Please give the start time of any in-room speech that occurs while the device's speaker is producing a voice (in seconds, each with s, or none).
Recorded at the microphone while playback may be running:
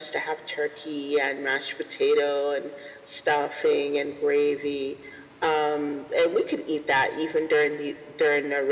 none